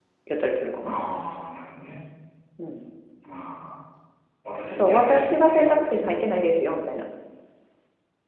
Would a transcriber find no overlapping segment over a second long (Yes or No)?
No